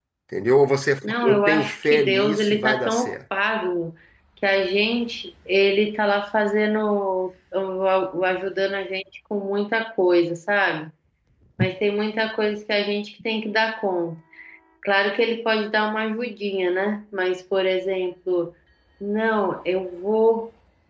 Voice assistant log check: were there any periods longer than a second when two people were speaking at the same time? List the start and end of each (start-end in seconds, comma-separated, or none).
1.0-3.1